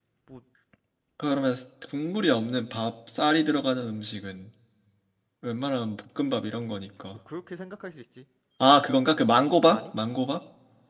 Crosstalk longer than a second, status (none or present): none